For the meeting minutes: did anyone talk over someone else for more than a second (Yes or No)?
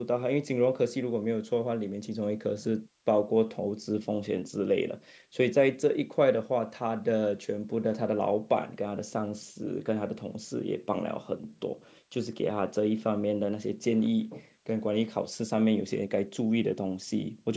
No